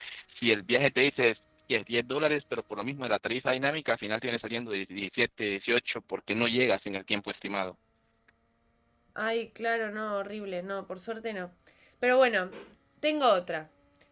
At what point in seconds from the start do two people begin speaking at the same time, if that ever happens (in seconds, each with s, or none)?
none